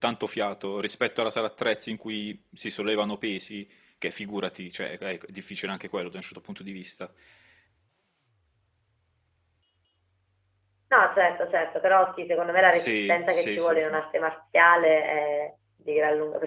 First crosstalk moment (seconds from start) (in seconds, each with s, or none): 12.7 s